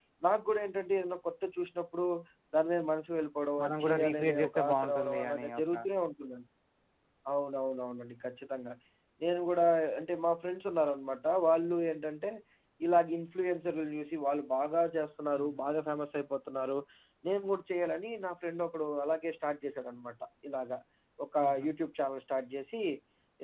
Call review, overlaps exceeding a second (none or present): present